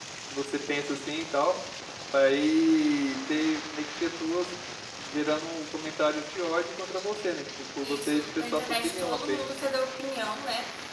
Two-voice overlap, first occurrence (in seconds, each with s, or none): 7.8 s